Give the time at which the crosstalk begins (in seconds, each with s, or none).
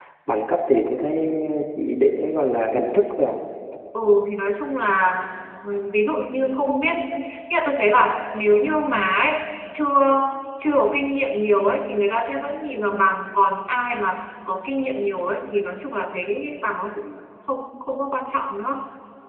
none